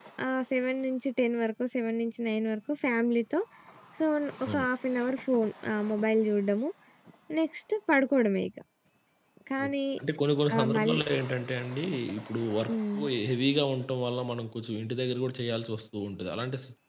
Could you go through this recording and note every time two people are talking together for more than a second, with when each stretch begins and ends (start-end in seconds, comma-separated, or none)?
none